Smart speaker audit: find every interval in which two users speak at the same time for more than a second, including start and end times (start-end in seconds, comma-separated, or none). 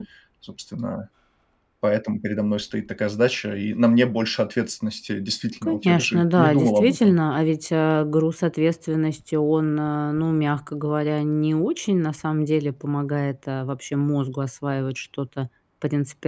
5.6-7.2